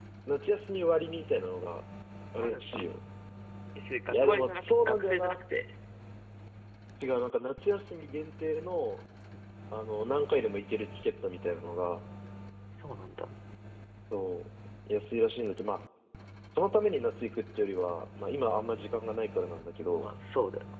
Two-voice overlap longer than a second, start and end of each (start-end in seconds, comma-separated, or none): 4.1-5.4